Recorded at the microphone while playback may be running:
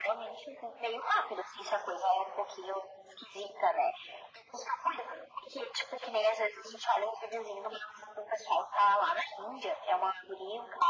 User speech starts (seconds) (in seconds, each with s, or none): none